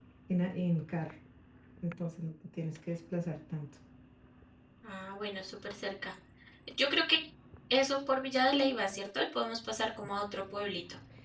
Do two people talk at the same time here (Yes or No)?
No